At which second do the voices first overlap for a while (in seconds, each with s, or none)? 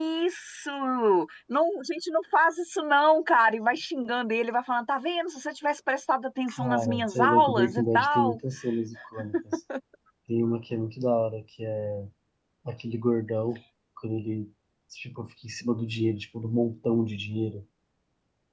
6.5 s